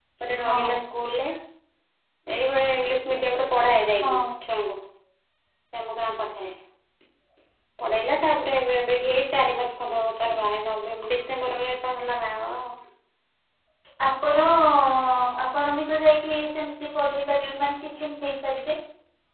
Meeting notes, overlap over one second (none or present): none